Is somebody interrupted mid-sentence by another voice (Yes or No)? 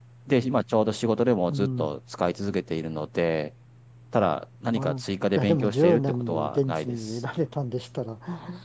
Yes